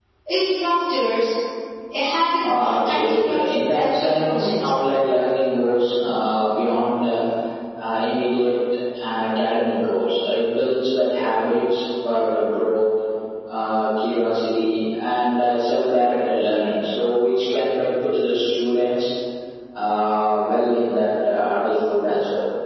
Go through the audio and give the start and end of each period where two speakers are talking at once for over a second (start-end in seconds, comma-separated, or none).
2.4-4.7